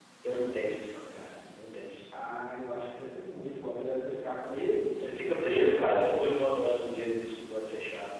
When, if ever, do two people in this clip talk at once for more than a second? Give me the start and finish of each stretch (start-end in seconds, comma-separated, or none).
5.0-6.3